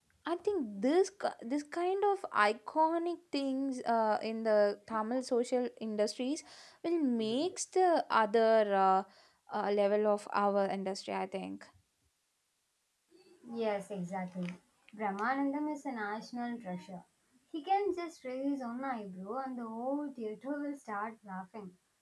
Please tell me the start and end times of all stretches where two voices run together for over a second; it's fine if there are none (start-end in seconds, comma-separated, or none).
none